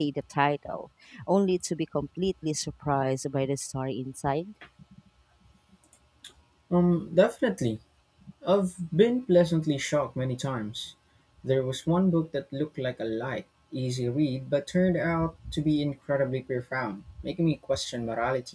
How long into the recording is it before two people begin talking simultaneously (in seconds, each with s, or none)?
none